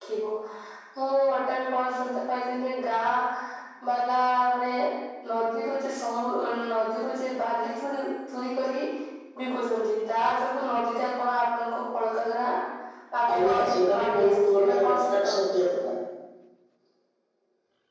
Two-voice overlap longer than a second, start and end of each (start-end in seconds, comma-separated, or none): 13.3-15.3